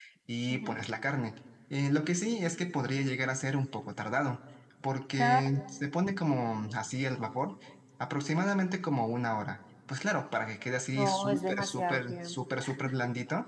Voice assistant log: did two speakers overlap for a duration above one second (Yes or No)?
Yes